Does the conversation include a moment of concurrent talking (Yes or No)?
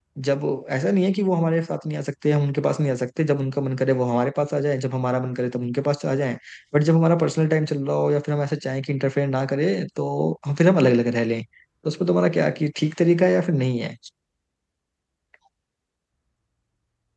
No